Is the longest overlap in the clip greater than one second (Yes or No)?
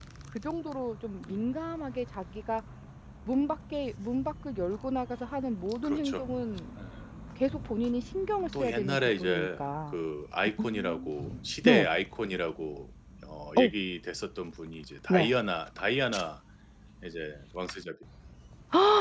Yes